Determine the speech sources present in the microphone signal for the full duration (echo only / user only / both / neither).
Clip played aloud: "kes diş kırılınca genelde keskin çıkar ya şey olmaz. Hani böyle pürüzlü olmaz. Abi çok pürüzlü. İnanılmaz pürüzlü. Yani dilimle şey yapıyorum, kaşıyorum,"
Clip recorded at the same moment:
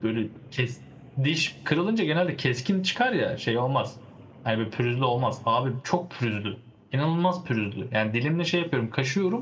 echo only